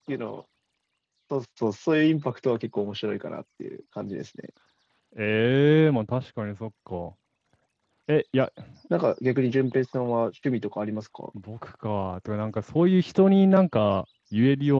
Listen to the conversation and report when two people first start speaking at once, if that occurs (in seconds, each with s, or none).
none